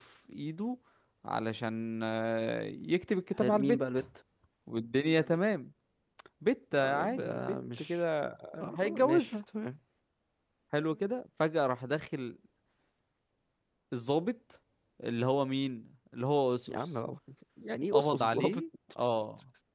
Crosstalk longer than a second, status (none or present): present